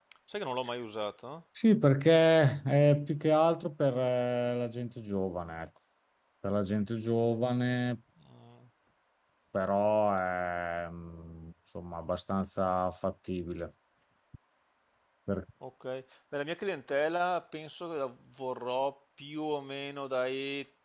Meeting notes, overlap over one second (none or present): none